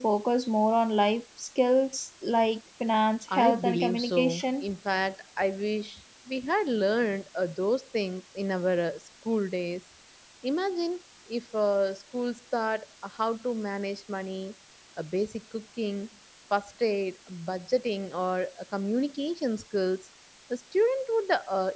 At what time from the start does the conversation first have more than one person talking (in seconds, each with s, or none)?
3.3 s